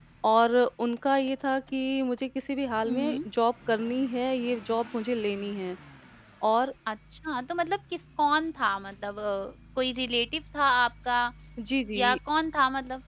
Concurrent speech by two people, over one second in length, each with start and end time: none

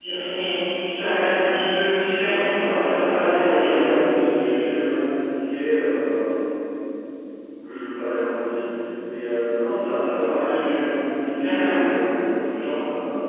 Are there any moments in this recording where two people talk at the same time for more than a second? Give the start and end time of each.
2.2-3.9

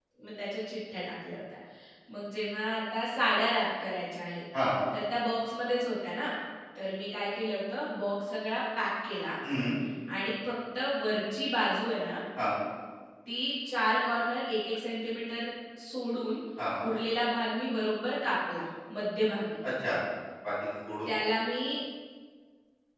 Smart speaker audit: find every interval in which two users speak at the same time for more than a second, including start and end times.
none

